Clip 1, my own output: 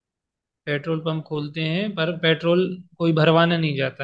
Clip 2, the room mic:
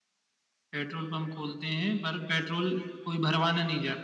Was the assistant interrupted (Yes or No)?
No